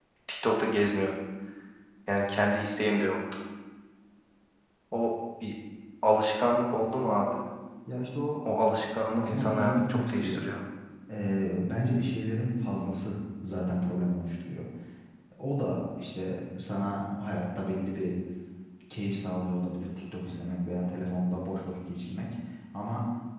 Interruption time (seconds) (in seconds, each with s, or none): 9.2 s